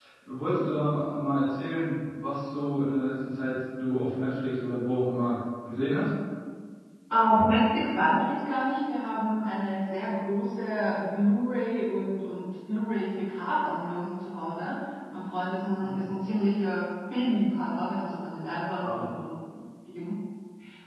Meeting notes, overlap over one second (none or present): none